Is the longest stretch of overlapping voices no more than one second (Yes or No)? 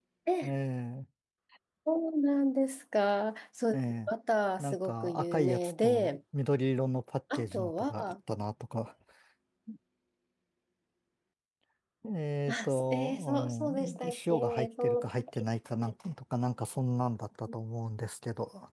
No